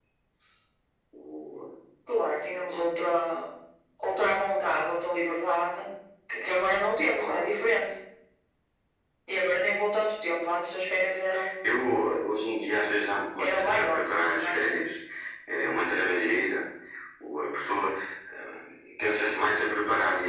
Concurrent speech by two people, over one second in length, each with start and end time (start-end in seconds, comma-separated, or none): 13.4-14.8